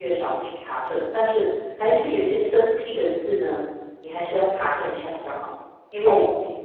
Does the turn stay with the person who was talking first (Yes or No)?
Yes